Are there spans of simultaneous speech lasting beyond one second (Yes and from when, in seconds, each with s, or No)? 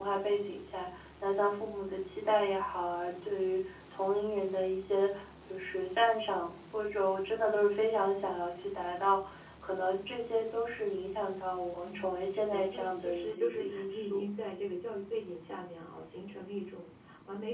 Yes, from 11.8 s